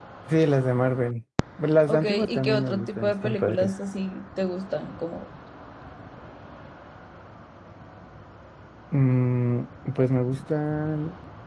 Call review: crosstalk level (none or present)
present